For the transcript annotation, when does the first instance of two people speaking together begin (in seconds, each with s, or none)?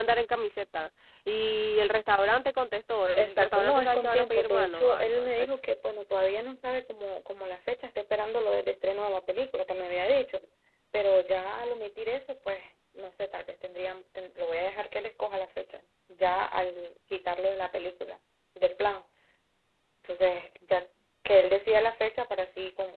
3.2 s